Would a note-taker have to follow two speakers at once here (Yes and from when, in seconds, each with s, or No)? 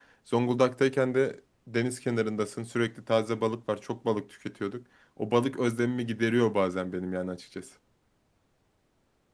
No